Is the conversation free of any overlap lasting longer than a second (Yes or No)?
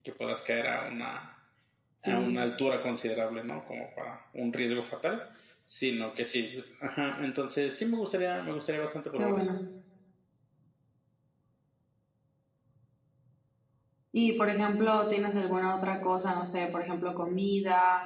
Yes